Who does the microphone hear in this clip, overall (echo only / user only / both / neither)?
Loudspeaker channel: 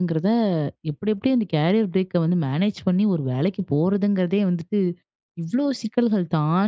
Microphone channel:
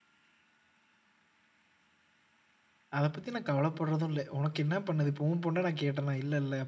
user only